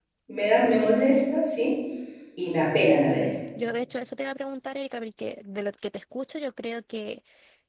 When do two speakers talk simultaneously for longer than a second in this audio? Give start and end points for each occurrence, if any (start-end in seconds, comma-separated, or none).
none